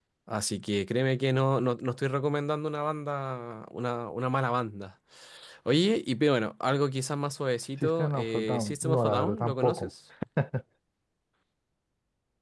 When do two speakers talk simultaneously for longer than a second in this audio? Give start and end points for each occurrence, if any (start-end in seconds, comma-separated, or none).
7.8-9.9